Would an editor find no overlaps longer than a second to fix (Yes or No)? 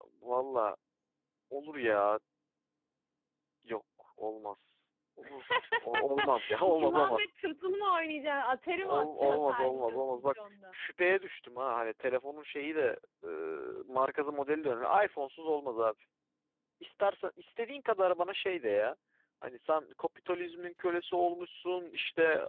No